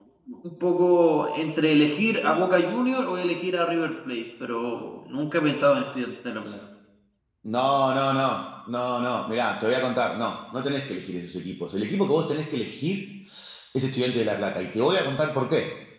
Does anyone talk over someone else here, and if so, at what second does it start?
none

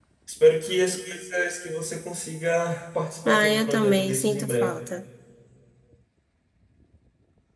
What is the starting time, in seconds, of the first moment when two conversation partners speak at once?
3.2 s

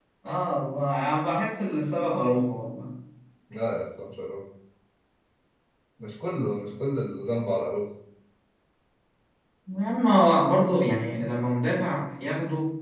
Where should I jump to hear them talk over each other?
none

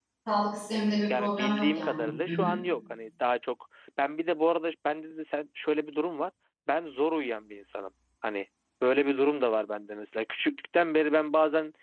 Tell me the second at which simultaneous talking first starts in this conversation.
1.2 s

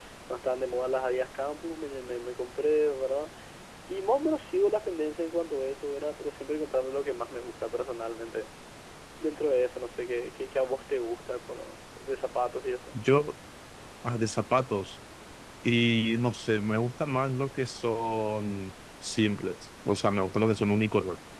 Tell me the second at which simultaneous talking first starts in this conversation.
none

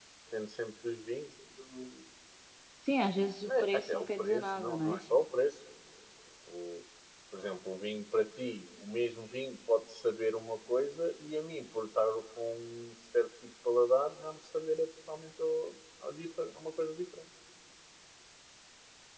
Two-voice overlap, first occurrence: 3.4 s

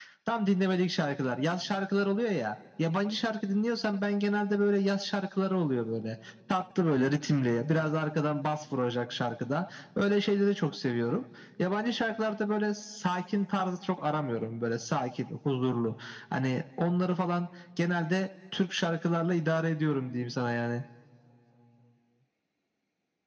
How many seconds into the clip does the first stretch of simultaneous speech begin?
none

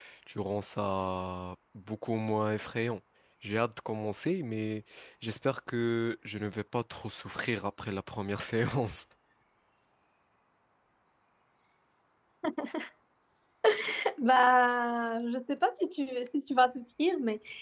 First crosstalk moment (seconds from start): none

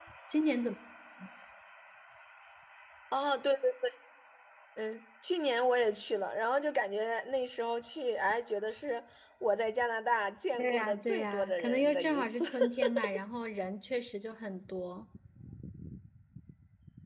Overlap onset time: 10.5 s

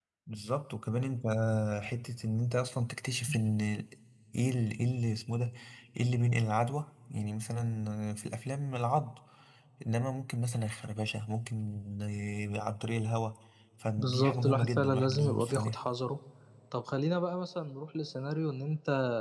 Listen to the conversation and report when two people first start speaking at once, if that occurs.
14.0 s

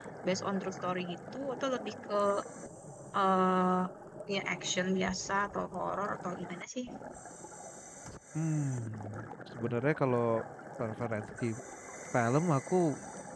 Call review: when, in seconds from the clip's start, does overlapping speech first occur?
none

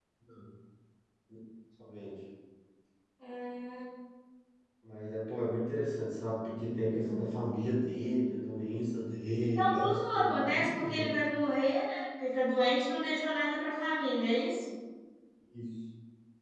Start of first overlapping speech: 9.5 s

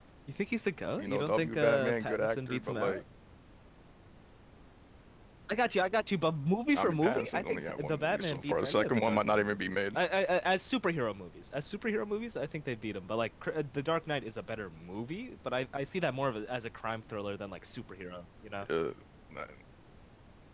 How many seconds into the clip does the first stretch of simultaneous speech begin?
1.0 s

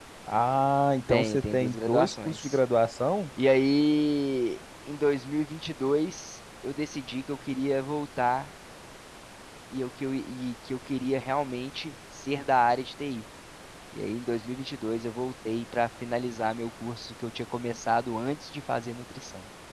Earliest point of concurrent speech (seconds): 1.1 s

